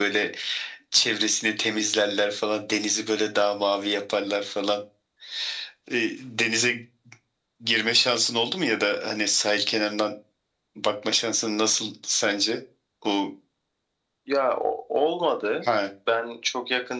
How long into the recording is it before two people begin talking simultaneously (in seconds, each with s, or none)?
none